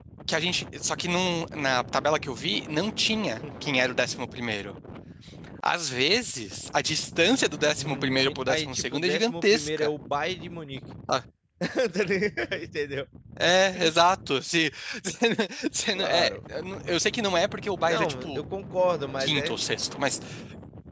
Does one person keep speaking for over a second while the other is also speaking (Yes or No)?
Yes